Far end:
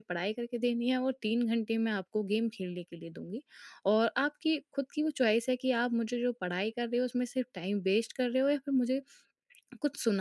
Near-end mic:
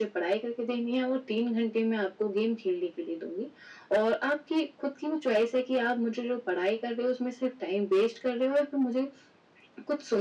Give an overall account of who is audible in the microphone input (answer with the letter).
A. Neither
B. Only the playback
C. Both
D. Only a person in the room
B